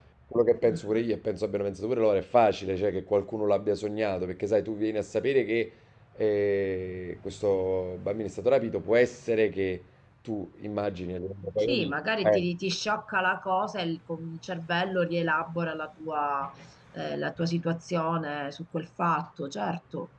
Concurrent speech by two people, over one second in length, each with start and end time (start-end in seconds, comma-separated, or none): none